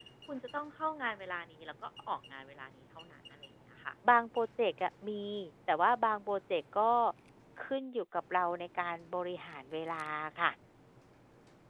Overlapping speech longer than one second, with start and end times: none

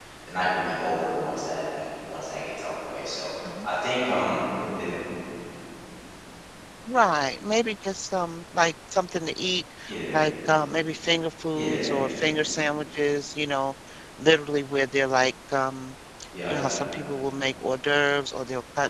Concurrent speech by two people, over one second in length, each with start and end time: none

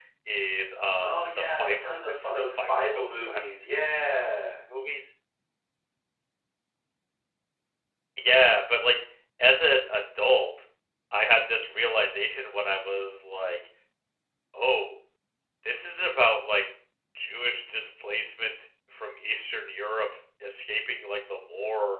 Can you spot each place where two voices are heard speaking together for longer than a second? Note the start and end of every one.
1.0-3.7

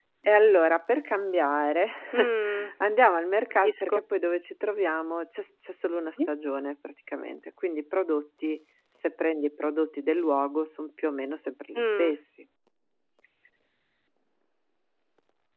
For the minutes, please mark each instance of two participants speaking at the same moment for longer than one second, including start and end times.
none

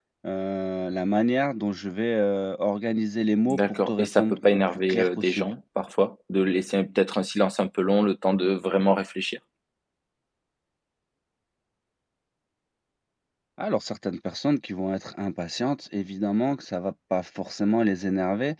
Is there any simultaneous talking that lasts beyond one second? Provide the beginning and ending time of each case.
3.5-5.5

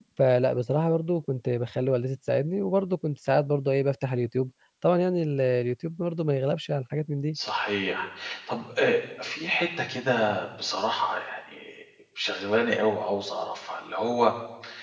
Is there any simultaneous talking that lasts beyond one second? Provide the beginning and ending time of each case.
none

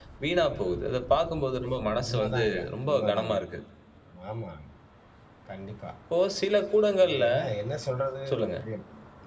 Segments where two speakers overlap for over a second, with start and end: 2.0-3.3

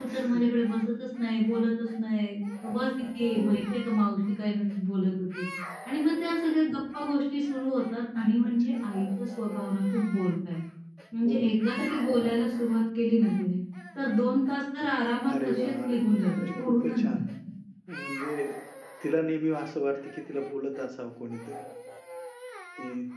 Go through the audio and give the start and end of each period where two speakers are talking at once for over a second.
15.4-17.1

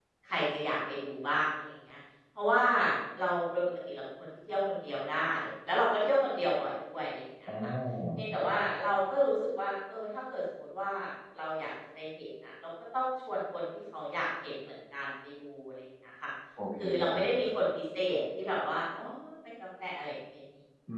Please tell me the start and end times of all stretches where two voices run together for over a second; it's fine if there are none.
none

